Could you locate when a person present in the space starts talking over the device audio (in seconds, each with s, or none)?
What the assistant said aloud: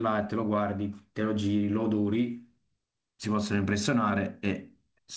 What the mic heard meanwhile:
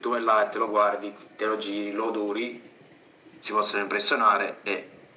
none